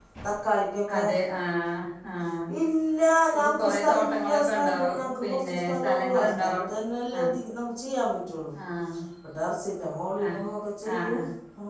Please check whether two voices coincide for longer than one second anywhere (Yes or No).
Yes